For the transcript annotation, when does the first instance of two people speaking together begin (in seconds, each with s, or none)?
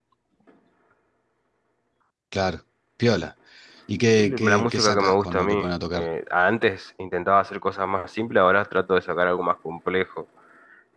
4.2 s